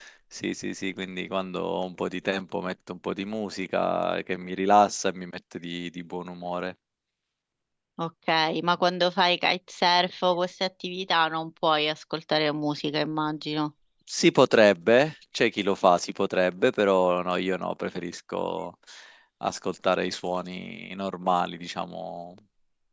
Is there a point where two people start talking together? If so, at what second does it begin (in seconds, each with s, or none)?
none